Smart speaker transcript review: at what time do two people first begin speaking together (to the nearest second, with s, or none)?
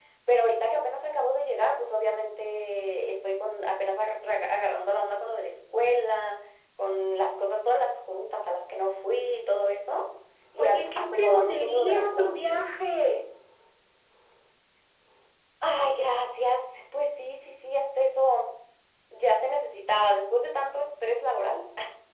11 s